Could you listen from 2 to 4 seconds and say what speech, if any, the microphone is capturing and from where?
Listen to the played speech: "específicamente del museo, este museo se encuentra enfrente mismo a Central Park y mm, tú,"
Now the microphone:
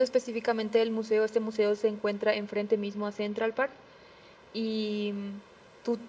echo only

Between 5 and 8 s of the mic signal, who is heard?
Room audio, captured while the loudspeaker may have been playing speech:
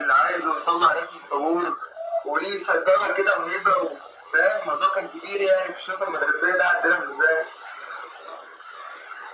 echo only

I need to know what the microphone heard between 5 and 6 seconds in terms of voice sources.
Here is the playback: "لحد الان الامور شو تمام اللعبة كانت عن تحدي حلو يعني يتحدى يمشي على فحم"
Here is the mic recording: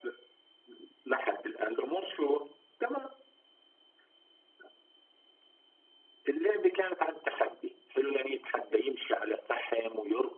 neither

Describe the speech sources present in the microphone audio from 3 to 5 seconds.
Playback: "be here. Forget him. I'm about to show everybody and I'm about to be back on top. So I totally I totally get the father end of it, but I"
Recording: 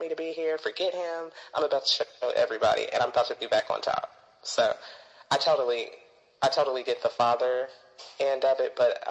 echo only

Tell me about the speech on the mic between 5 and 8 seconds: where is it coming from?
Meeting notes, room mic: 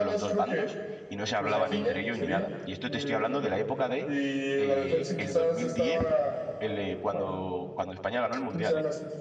both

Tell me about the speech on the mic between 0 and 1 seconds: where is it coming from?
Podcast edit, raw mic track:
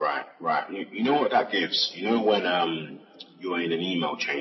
echo only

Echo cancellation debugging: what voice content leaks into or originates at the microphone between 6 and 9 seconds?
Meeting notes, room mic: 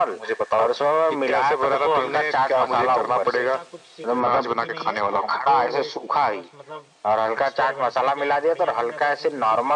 both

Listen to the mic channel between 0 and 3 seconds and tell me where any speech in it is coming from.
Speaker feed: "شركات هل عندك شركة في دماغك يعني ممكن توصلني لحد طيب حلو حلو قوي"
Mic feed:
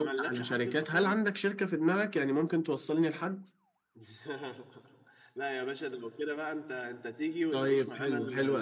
both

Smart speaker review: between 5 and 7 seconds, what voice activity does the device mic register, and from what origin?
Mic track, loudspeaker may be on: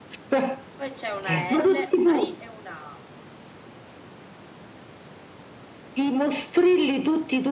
echo only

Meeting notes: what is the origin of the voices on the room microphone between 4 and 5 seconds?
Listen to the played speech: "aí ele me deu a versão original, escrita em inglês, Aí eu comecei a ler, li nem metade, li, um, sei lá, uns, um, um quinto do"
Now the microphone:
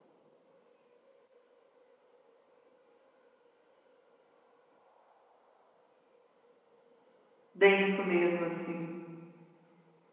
neither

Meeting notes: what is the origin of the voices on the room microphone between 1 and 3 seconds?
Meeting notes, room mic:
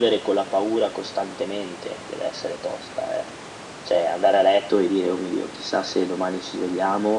echo only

